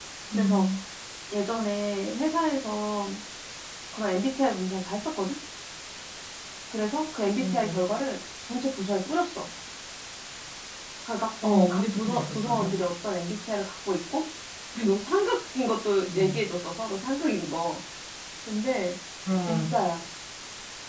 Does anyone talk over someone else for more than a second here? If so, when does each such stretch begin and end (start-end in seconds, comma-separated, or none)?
11.4-12.7